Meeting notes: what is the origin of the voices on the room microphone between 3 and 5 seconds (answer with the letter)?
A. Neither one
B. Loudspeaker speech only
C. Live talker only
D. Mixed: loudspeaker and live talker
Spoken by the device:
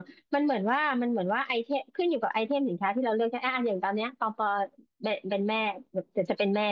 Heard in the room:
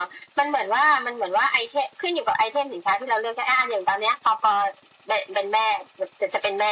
B